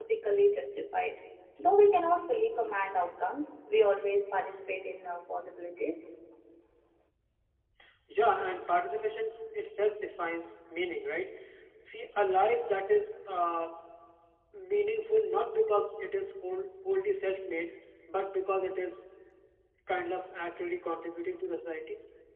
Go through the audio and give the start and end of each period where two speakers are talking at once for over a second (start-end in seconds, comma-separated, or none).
none